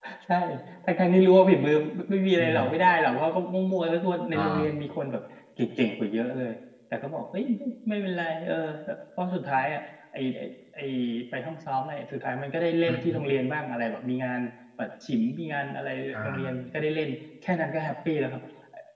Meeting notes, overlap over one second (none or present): none